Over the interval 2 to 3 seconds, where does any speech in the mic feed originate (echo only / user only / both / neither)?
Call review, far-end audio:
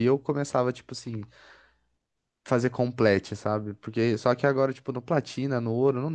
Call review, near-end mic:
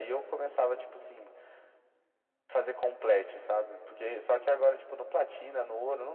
echo only